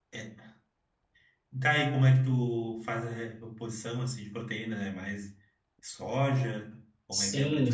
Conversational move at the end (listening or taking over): taking over